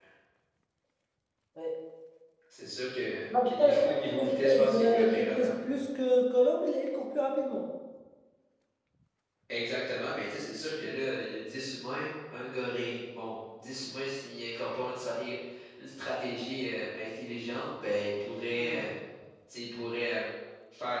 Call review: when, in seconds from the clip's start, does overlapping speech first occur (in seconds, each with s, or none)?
3.4 s